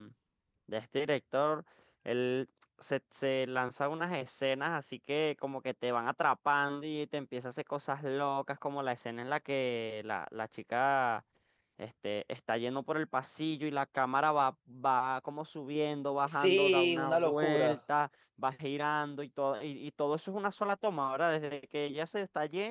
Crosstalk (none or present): present